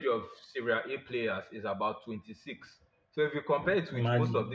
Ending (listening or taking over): listening